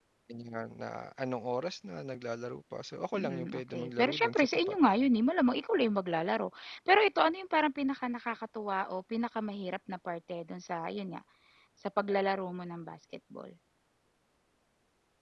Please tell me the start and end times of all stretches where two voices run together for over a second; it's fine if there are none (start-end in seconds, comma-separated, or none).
3.2-4.8